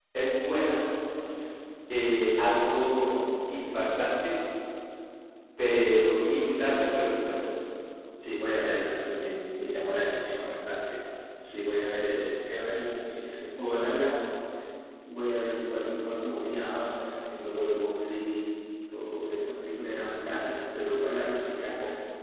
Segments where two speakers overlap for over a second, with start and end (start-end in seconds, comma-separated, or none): none